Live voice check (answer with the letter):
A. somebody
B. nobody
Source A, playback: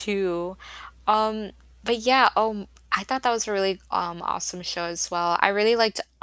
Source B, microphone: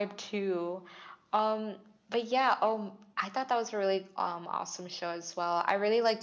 B